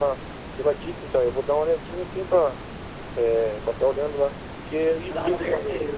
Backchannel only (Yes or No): Yes